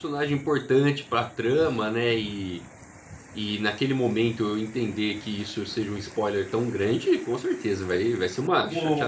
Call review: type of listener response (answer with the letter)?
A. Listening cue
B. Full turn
B